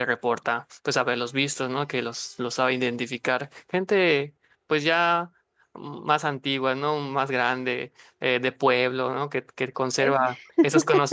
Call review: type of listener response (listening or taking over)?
listening